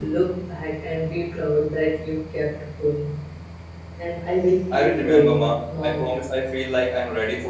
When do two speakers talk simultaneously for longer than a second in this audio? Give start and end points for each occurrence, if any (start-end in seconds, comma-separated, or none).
4.7-6.2